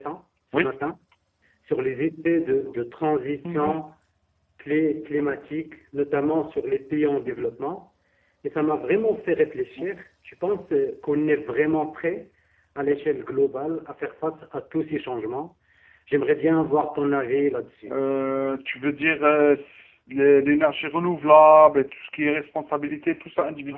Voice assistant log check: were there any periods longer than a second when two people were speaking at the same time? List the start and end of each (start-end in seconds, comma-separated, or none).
none